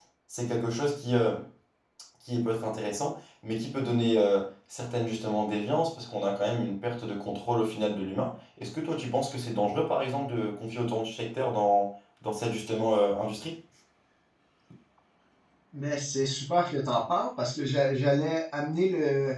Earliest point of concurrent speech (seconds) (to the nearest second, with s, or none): none